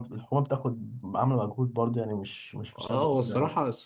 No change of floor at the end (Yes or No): No